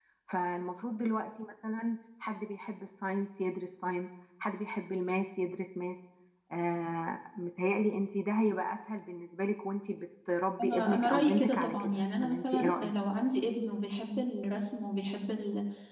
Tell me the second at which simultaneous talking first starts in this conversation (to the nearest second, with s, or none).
11 s